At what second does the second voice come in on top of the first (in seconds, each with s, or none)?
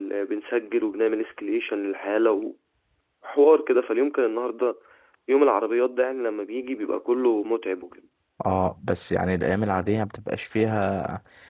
none